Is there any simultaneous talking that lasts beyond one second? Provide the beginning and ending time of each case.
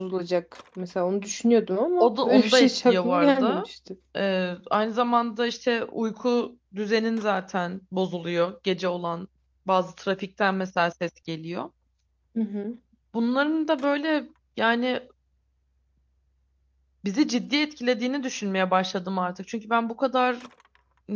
2.0-3.6

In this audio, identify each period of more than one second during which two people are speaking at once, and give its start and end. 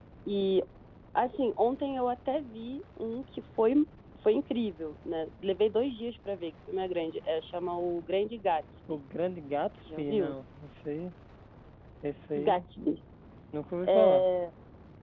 none

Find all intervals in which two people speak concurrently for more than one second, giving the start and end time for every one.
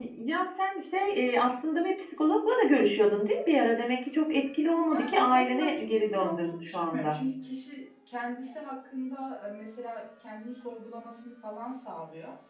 4.9-7.2

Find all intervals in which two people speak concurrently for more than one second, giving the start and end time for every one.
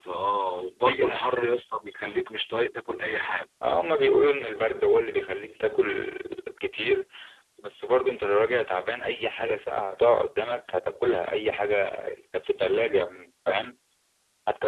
none

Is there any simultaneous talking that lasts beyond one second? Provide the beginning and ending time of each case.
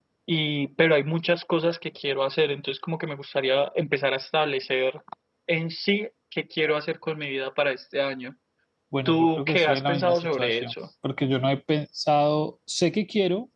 9.0-10.7

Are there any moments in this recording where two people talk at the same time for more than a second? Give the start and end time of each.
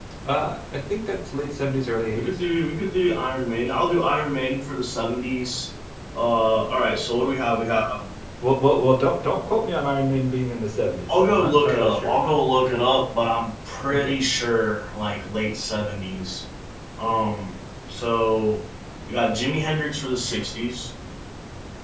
11.1-12.6

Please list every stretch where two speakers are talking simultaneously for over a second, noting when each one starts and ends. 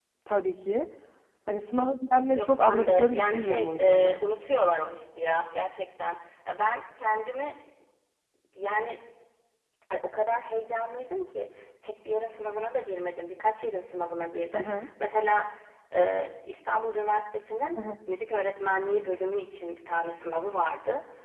2.4-4.2

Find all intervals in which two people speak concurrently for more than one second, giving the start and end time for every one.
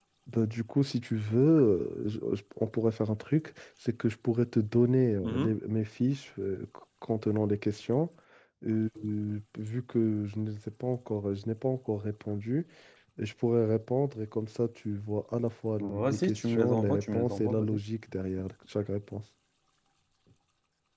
15.8-17.8

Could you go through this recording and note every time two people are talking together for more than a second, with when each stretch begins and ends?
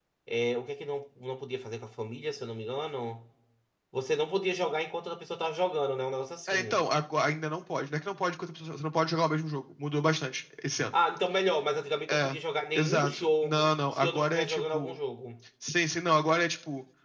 12.8-15.0

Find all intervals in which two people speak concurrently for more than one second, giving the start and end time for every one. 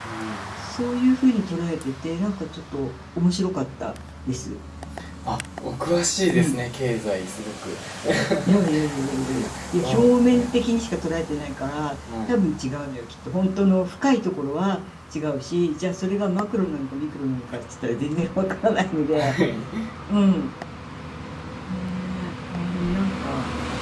9.2-10.5

